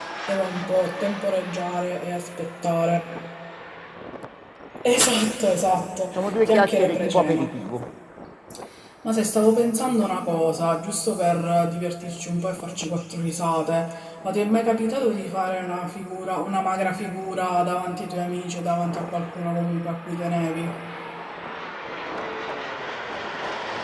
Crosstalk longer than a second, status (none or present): present